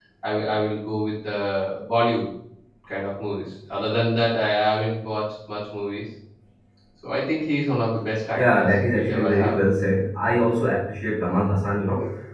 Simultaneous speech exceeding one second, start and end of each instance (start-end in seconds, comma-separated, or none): 8.4-9.6